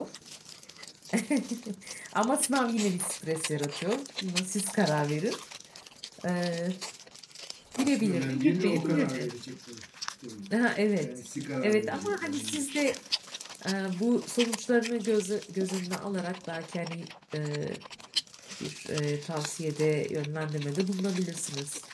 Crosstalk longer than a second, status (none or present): present